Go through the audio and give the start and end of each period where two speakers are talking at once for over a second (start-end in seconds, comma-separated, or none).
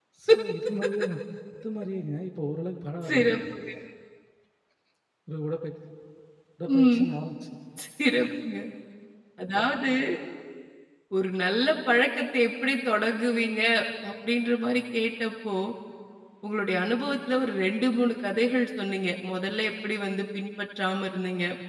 none